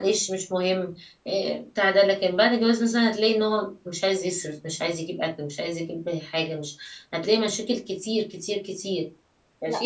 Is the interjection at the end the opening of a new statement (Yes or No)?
Yes